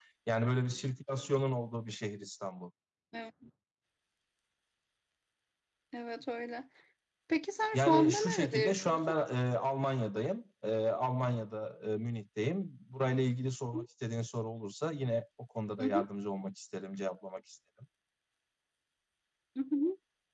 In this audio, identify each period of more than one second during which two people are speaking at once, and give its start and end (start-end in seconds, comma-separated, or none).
7.7-9.2